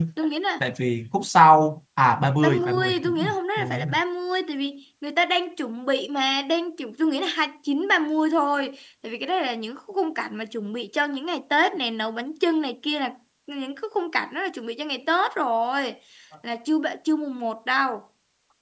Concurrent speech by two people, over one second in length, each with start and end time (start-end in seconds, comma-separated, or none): 2.4-3.9